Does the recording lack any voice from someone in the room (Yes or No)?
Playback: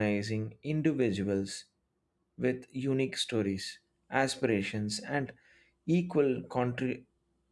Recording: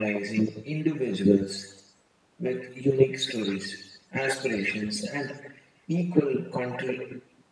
Yes